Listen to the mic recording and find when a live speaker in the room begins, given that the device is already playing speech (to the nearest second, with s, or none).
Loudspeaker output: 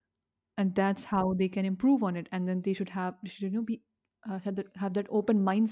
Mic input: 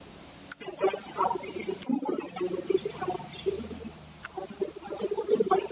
none